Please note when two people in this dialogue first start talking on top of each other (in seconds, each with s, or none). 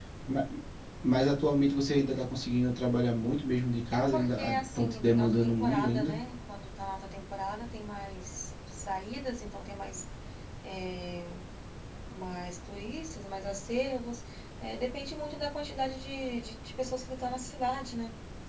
3.9 s